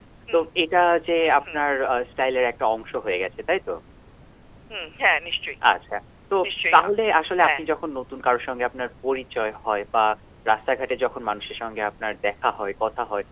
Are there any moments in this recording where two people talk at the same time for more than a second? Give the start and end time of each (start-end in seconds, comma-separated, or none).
none